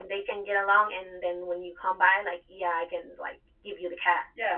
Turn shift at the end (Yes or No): Yes